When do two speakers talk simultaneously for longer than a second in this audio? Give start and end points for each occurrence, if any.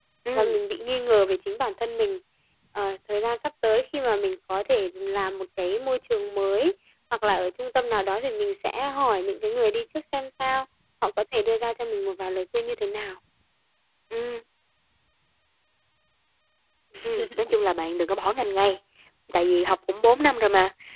none

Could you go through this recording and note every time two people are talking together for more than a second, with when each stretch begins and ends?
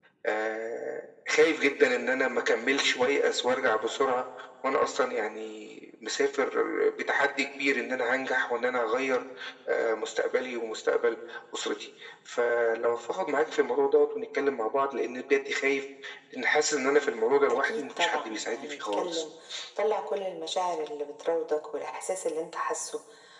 17.5-19.2

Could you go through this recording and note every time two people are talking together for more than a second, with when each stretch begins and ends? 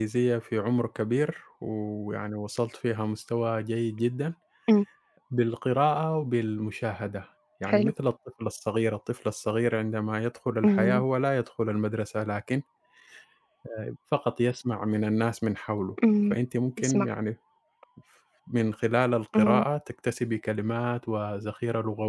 none

